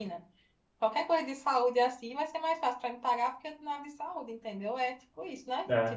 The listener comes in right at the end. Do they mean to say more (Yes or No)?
Yes